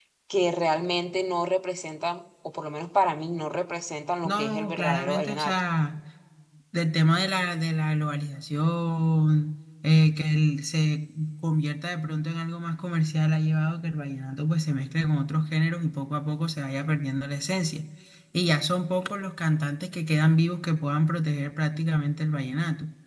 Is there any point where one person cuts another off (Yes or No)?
Yes